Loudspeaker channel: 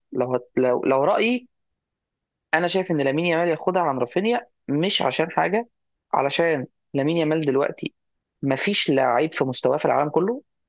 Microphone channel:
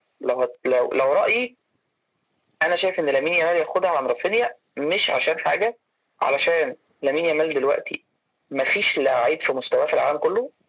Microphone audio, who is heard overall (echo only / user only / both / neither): echo only